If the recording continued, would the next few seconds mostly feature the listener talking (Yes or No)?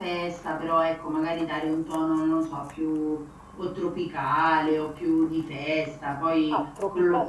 Yes